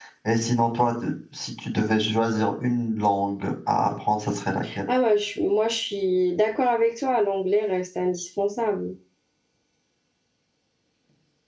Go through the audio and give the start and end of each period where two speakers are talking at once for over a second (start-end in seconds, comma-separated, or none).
none